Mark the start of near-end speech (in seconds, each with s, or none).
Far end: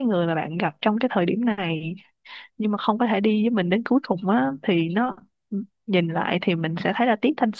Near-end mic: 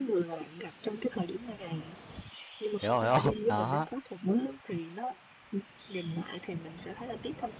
2.8 s